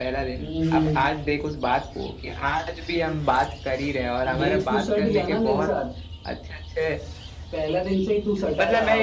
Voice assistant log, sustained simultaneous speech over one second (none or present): present